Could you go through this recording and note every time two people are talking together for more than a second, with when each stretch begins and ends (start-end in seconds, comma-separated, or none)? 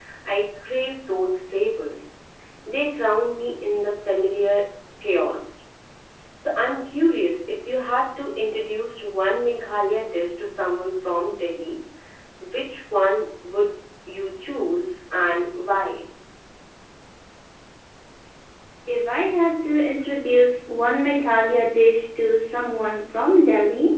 none